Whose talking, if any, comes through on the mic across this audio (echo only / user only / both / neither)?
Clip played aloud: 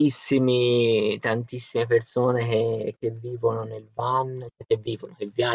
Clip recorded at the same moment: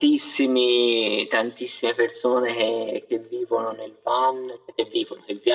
echo only